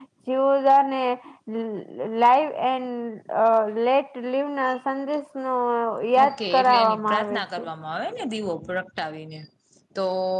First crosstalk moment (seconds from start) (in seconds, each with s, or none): 6.2 s